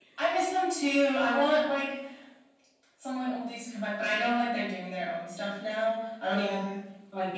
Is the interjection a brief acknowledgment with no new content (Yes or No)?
Yes